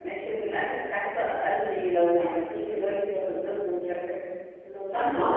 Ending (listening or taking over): listening